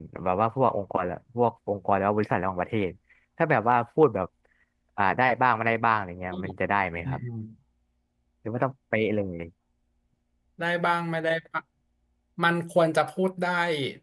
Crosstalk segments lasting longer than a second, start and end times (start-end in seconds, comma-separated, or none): none